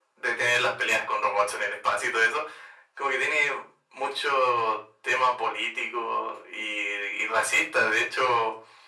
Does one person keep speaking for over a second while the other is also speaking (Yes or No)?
No